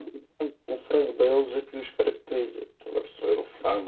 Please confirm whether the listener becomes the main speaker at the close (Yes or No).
Yes